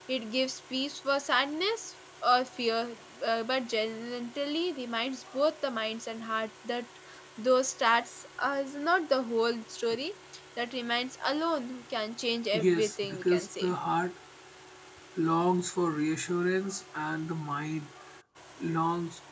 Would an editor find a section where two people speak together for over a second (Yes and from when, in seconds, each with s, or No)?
Yes, from 12.5 s